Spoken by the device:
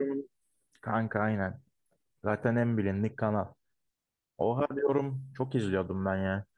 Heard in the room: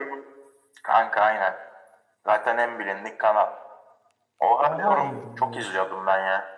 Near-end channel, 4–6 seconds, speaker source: both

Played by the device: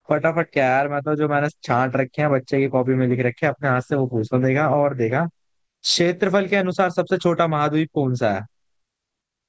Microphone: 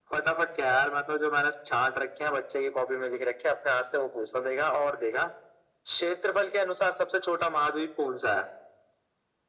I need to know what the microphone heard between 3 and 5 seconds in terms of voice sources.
echo only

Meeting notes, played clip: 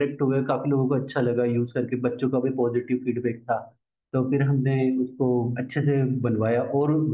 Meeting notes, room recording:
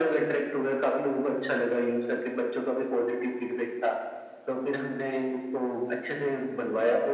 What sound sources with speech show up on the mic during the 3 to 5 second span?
echo only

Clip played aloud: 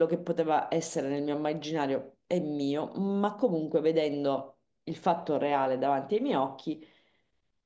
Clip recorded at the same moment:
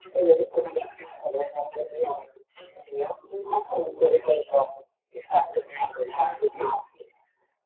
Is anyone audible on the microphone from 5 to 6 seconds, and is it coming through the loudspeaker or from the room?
echo only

